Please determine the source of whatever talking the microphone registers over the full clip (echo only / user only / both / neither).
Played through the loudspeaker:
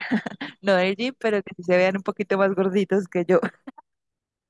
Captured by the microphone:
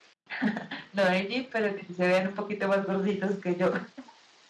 echo only